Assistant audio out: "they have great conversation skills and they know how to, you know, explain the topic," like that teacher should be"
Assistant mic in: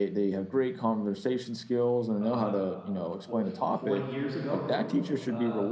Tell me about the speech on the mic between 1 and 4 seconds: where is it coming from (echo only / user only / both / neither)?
both